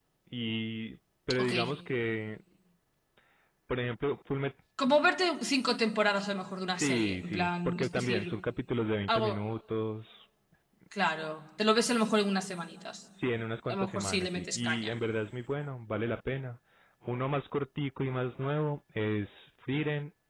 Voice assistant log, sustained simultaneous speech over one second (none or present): present